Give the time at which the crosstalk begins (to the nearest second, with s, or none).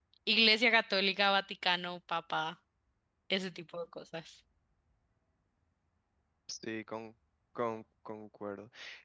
none